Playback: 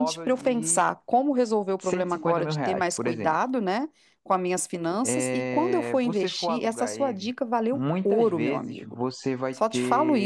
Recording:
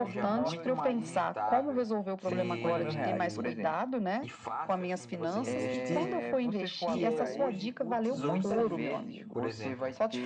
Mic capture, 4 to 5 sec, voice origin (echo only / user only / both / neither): both